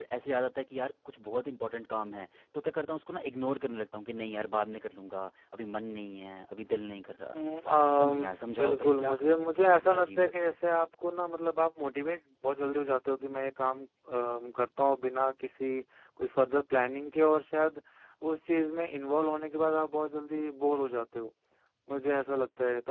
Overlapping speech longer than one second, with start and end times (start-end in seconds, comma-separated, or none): 8.6-10.6